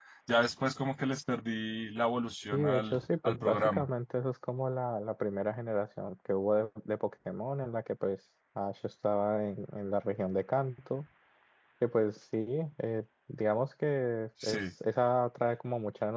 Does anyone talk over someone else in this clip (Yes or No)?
Yes